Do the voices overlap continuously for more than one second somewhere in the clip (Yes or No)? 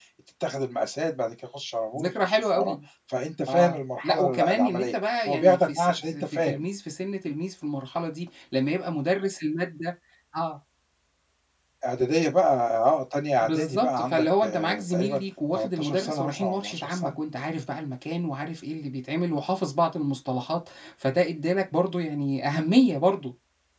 Yes